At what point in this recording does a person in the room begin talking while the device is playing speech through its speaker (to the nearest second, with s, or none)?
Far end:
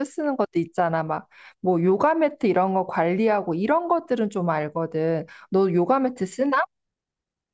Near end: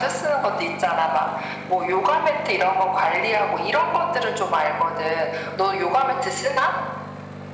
none